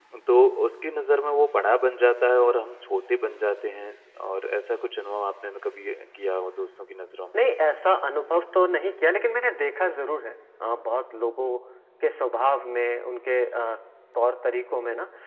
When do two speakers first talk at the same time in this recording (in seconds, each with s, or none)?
none